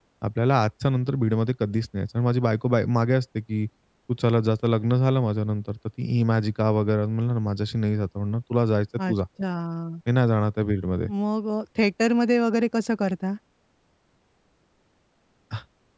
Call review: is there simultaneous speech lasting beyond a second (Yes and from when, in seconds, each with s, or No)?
No